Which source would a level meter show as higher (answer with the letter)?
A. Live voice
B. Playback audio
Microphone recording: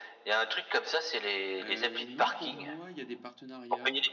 B